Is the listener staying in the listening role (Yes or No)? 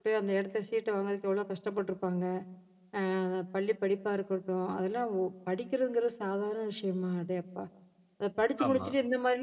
Yes